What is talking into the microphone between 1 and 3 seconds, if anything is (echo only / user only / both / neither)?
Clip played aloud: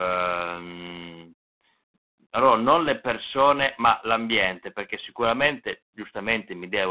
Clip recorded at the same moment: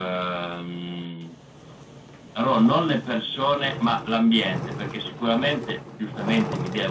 echo only